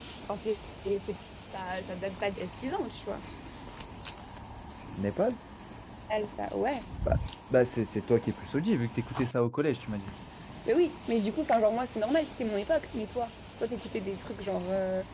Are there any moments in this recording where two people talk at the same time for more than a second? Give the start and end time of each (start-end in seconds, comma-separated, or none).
none